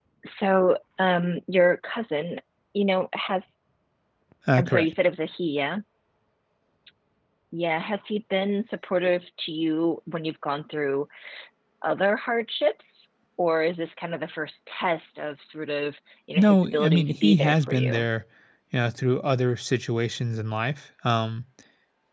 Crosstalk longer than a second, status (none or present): present